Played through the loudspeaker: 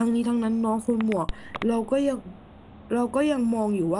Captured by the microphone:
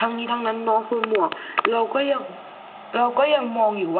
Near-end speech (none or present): none